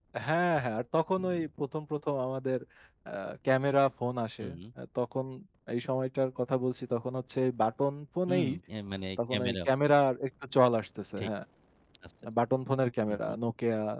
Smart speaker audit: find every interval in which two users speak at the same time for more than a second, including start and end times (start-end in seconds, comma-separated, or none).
none